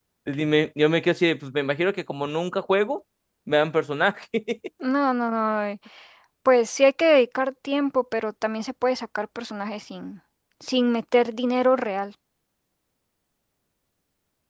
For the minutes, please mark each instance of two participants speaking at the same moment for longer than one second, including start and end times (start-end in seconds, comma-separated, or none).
none